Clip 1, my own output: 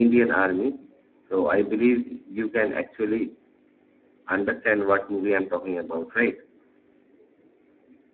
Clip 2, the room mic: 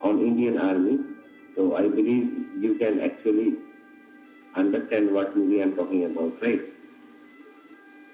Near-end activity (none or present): none